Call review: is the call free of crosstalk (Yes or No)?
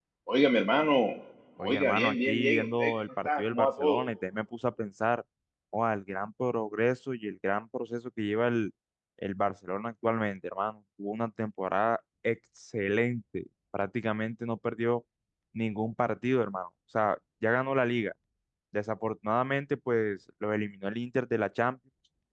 No